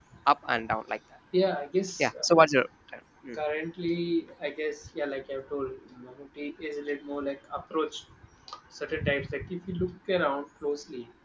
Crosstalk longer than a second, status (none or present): none